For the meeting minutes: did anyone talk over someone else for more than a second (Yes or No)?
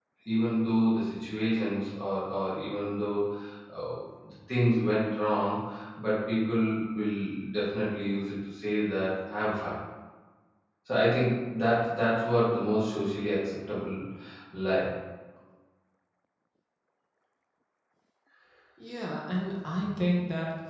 No